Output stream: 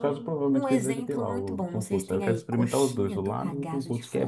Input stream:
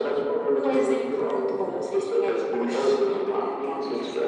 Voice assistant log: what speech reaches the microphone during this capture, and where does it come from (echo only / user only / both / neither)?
echo only